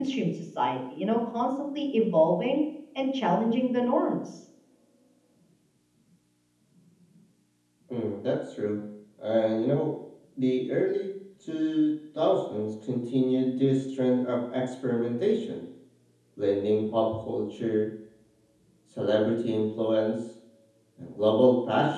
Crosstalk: none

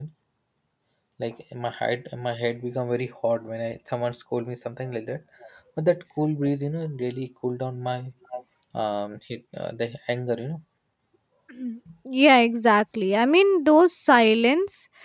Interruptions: none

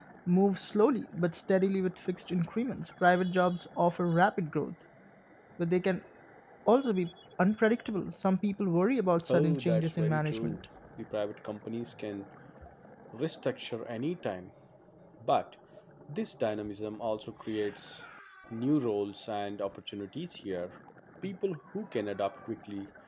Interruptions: present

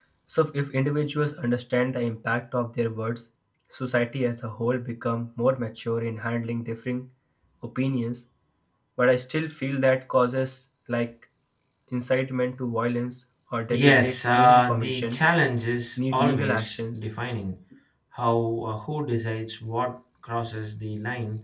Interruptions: present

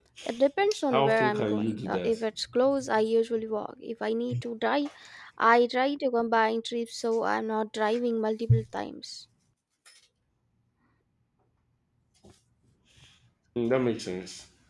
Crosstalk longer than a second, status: present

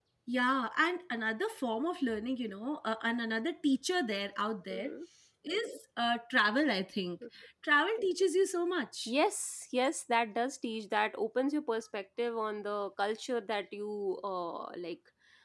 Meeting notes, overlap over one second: none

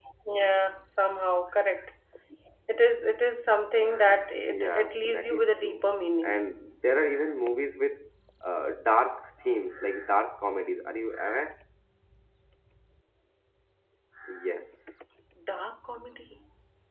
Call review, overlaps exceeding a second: present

